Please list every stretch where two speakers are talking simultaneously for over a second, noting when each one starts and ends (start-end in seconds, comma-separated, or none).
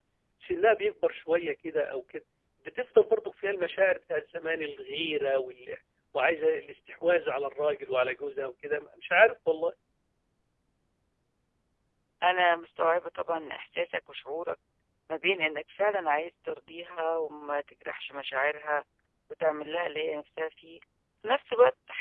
none